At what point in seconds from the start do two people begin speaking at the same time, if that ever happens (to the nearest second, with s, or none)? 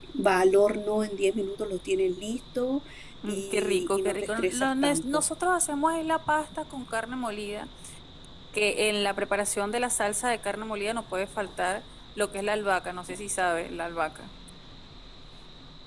3 s